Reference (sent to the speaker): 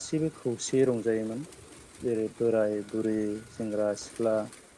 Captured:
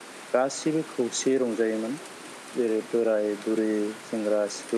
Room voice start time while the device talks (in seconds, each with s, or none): none